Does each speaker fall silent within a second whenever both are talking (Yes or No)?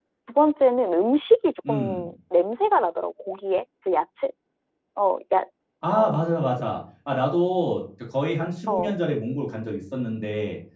Yes